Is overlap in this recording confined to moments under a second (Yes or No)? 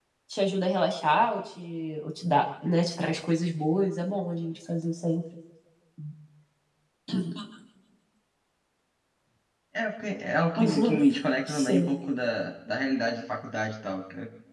Yes